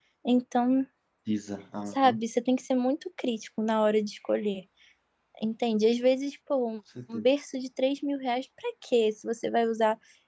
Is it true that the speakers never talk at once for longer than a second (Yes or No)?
Yes